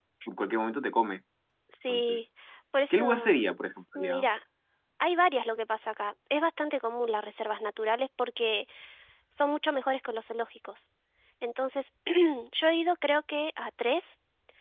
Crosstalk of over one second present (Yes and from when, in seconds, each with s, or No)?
No